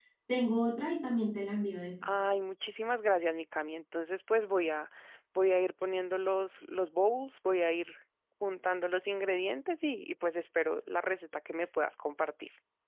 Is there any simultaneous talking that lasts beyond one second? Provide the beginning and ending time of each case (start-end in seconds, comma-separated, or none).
none